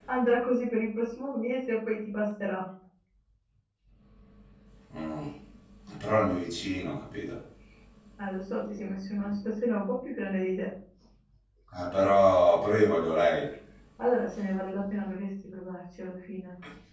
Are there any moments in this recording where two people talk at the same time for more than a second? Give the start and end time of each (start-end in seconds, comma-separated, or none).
none